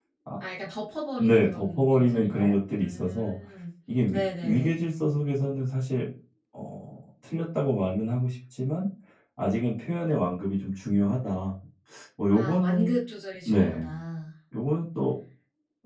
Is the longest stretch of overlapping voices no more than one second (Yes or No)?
No